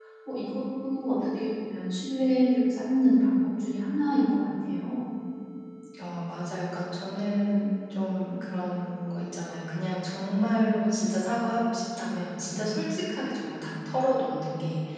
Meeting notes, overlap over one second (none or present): none